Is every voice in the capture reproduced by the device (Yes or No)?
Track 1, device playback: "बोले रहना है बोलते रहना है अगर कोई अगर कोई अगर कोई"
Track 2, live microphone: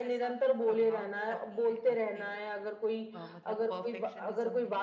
No